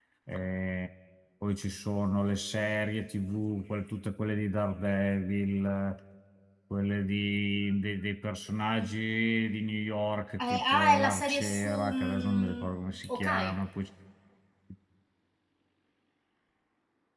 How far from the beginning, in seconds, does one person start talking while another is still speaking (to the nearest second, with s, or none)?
10 s